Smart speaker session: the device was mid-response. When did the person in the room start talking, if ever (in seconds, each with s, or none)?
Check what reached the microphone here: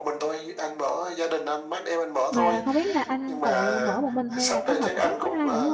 2.3 s